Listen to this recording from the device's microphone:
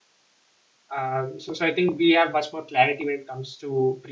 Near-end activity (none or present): present